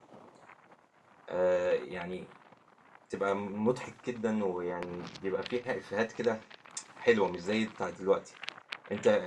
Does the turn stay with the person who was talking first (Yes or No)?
Yes